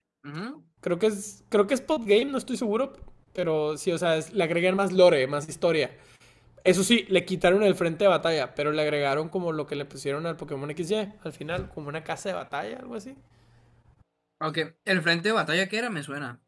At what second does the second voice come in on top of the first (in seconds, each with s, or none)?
none